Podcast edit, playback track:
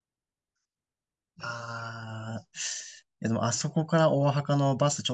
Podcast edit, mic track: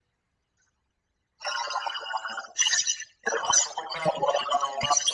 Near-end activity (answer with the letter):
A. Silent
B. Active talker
A